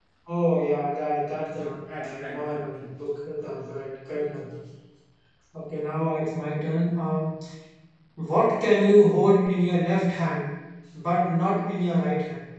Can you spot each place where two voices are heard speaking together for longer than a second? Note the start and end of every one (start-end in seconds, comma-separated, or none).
1.6-2.9